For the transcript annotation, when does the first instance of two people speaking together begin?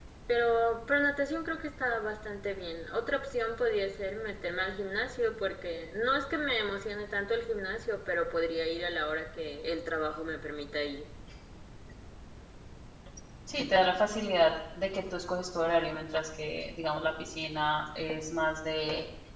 none

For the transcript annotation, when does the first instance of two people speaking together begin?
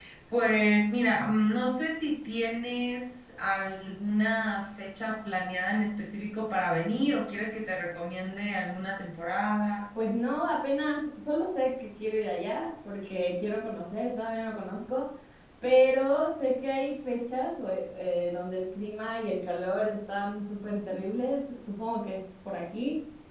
none

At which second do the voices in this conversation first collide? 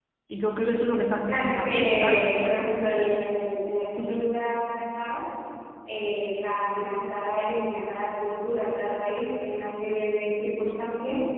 1.2 s

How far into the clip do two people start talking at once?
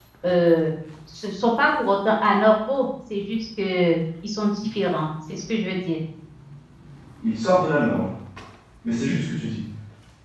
none

